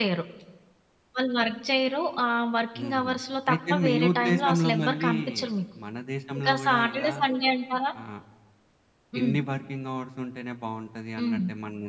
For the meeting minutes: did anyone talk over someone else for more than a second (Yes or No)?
Yes